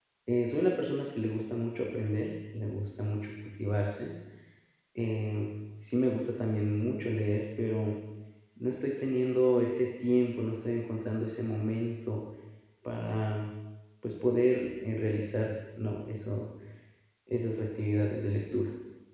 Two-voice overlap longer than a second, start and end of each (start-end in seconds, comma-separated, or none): none